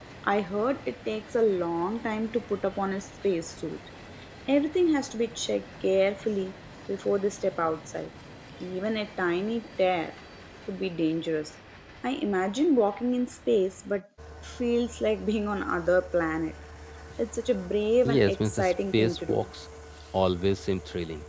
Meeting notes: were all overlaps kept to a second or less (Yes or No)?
No